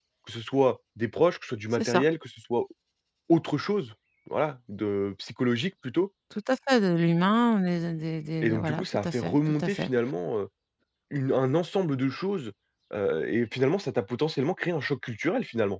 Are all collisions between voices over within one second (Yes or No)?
No